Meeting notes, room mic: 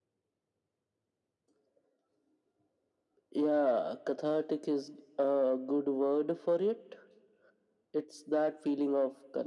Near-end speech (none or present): none